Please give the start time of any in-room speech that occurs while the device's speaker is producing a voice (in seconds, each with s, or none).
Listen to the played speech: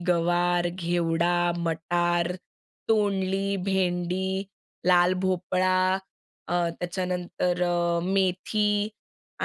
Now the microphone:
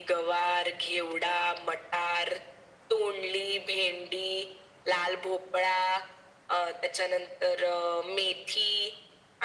none